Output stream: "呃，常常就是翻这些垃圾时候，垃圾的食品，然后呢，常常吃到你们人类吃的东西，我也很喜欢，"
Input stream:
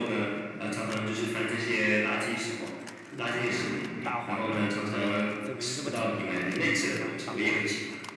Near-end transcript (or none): 大黄啊，这个这个名字这么土啊，那行吧，大黄，